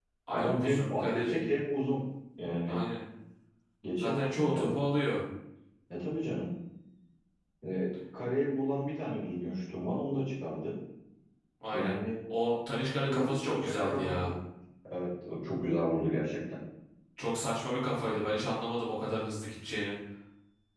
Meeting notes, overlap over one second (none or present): present